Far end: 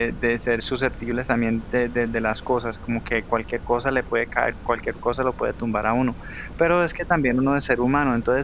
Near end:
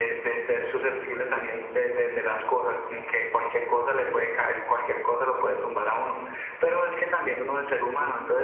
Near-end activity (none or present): present